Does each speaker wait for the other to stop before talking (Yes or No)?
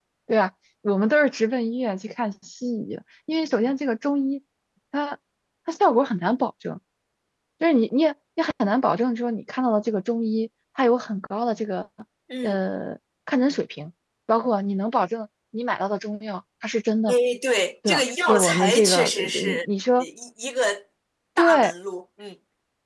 No